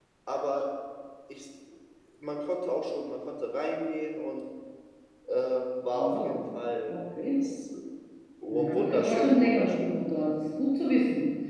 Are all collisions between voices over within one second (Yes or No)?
No